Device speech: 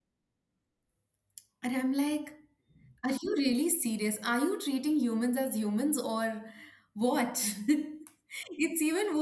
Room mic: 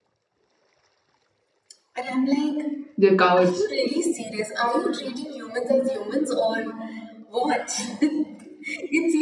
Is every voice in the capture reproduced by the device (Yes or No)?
No